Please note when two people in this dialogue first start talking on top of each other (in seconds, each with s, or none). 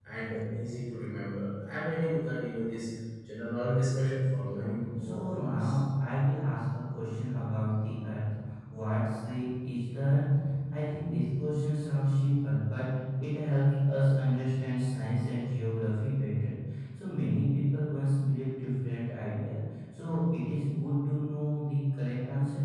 4.4 s